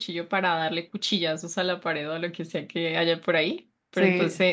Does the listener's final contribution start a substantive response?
No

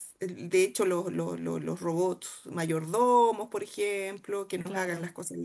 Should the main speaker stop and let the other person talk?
No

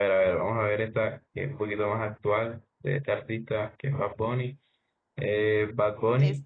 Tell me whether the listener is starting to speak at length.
No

